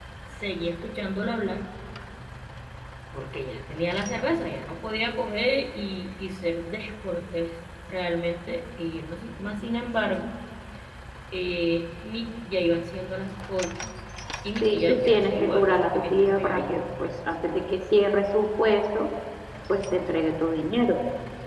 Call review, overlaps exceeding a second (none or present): present